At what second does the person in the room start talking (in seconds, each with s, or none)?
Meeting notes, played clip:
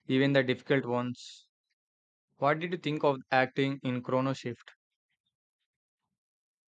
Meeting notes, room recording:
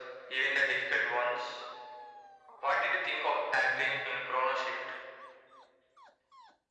none